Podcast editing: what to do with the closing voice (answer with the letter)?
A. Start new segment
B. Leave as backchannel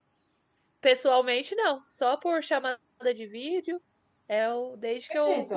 B